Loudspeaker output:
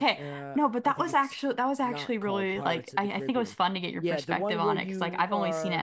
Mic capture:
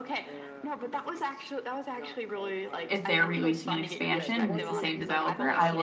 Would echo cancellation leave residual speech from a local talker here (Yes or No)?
Yes